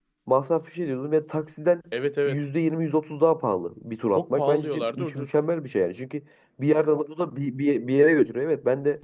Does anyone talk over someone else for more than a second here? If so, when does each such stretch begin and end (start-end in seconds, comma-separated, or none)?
4.2-5.4